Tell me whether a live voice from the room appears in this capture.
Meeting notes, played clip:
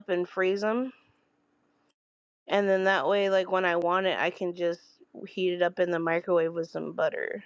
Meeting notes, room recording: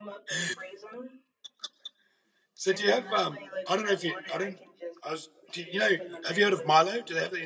Yes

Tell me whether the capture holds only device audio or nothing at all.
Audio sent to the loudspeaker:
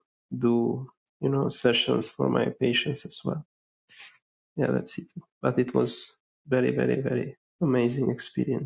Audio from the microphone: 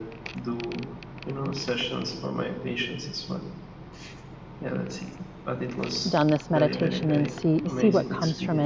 No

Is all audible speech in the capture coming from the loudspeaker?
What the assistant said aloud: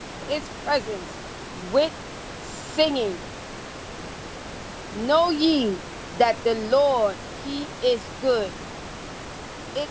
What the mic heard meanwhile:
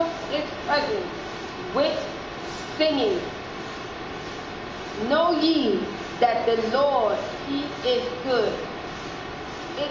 Yes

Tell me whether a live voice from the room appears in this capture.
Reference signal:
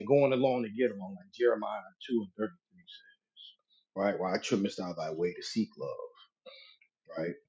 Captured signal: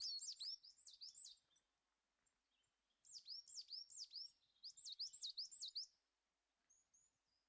No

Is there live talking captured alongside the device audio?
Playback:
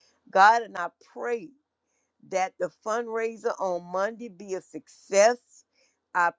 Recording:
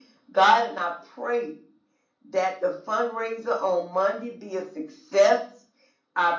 No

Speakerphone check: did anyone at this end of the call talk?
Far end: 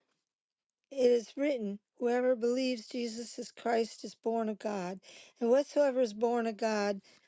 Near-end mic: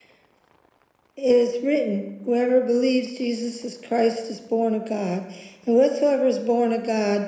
No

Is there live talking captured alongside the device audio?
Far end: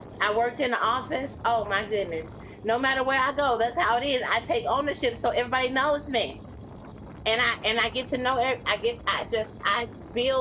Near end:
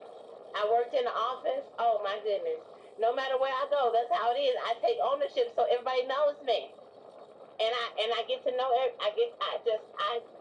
No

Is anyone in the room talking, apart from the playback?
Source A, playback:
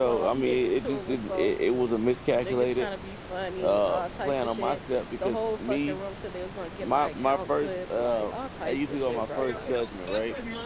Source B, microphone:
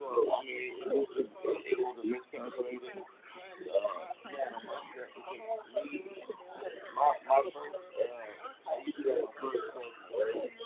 No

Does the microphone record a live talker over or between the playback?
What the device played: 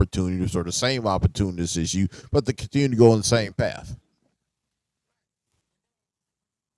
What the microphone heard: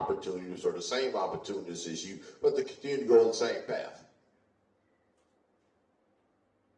No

